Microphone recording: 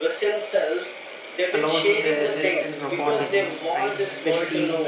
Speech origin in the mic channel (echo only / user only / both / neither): both